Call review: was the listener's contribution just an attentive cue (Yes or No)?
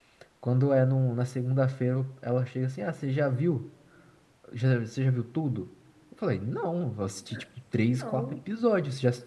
Yes